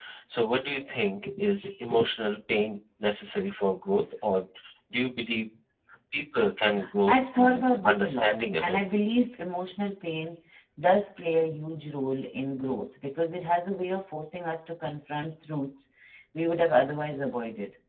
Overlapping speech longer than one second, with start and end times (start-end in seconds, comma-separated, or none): 7.1-8.8